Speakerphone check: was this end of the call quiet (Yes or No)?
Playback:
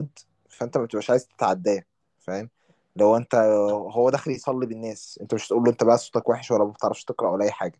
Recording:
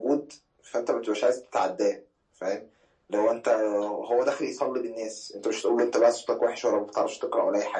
Yes